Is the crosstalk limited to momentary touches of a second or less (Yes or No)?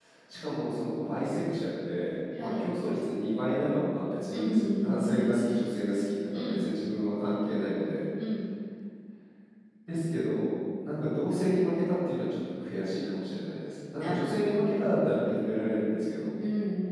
No